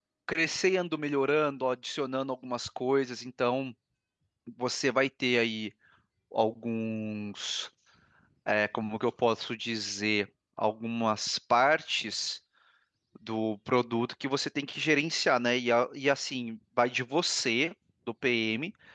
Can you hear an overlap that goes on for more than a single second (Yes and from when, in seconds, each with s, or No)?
No